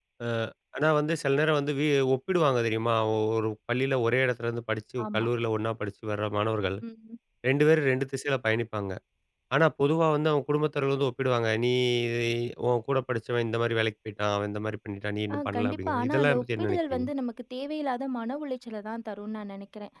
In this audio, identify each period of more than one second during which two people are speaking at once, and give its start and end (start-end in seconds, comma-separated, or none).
15.3-17.1